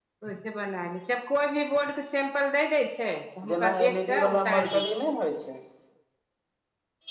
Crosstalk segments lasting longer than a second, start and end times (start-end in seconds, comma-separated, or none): 3.5-5.2